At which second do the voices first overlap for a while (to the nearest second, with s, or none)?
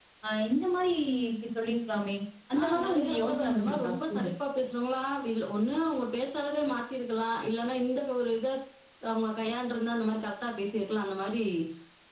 3 s